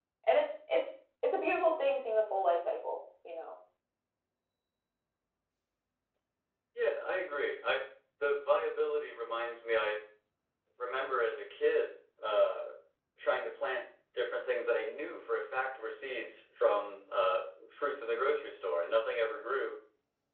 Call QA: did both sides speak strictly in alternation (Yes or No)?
Yes